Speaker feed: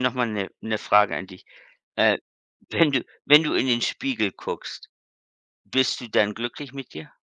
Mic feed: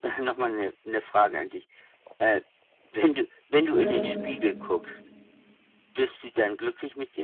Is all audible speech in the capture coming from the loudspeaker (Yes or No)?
No